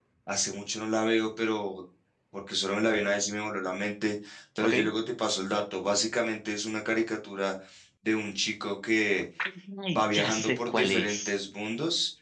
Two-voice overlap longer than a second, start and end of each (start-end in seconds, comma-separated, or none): 9.9-11.3